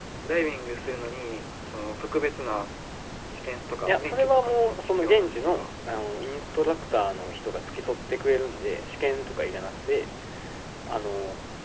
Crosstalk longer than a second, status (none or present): present